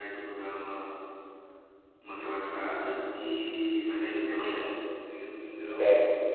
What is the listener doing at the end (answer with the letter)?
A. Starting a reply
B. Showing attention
B